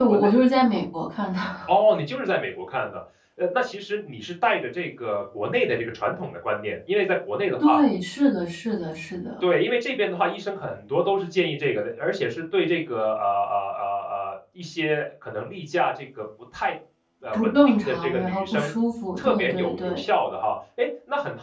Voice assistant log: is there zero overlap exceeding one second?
No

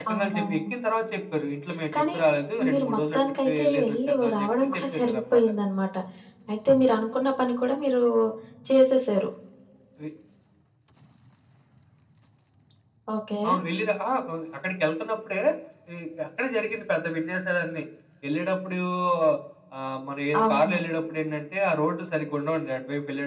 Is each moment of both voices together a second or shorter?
No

